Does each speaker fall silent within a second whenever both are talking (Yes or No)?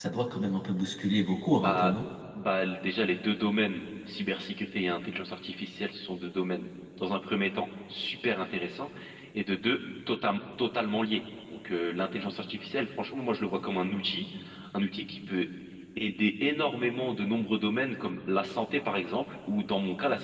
Yes